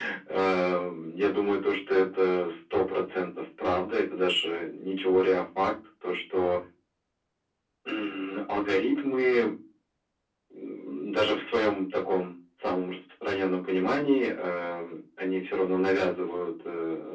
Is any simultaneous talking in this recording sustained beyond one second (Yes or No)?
No